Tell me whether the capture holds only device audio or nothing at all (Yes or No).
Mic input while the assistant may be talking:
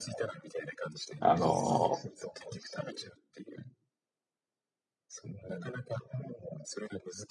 No